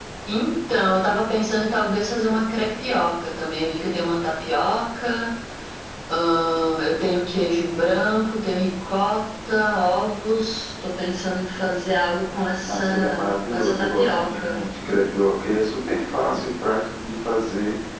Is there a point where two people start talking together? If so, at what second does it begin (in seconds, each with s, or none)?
12.7 s